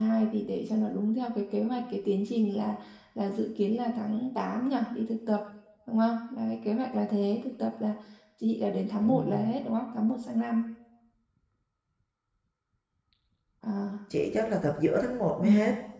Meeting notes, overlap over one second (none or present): none